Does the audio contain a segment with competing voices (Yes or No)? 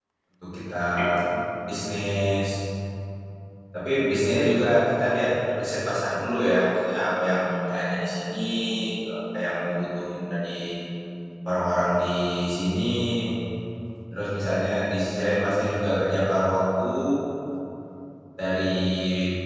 No